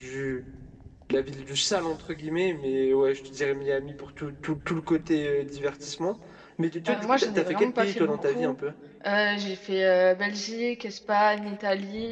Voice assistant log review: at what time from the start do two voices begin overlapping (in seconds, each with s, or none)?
6.9 s